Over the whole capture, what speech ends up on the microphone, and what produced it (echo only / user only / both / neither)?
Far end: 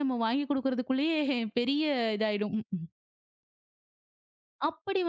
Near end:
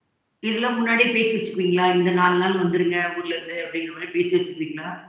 user only